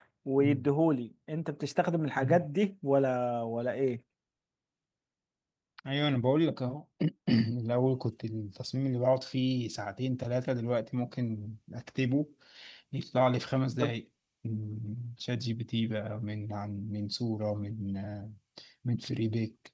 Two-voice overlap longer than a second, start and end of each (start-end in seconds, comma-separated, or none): none